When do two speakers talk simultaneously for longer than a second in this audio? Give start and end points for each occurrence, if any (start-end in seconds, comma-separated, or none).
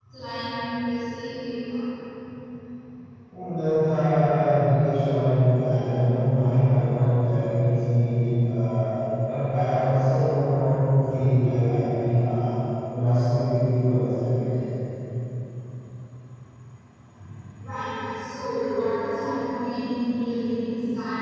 none